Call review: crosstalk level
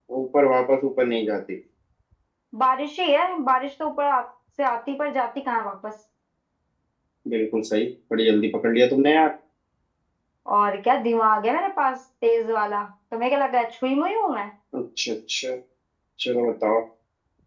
none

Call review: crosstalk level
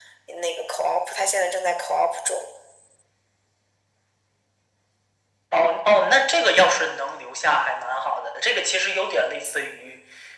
none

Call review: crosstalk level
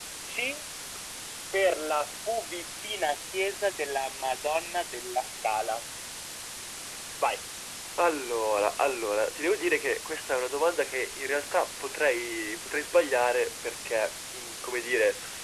none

